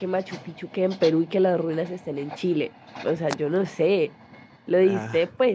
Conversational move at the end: listening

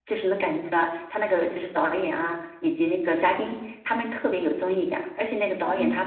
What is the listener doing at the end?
listening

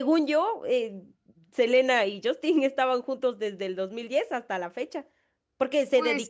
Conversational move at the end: listening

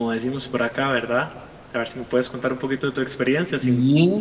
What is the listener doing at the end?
taking over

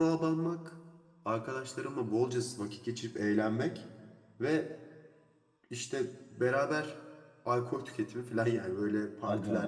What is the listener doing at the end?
taking over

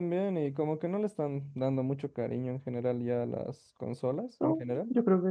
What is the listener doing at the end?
taking over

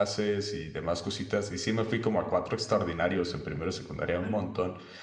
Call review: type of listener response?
listening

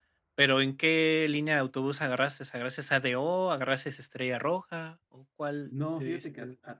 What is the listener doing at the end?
taking over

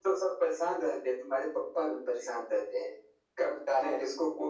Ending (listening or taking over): listening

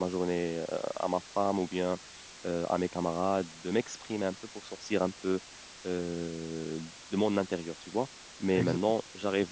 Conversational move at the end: listening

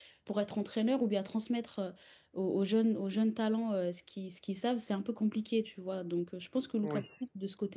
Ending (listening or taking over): listening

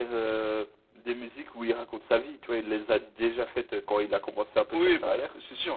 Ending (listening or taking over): taking over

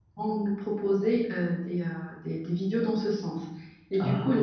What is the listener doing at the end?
listening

